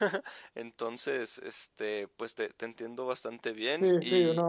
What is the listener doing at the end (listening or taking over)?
taking over